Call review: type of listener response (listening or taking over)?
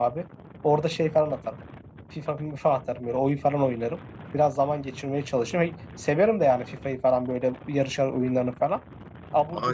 taking over